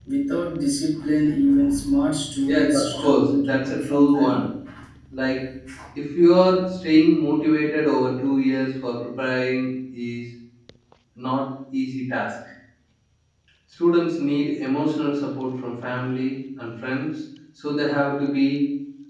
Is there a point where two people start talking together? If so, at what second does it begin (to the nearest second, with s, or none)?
2 s